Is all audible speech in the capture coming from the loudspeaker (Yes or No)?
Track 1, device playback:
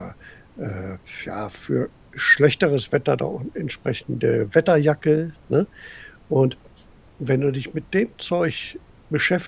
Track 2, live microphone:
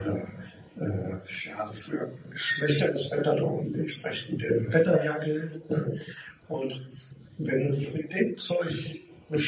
Yes